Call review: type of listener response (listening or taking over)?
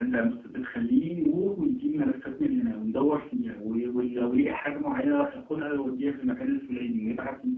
listening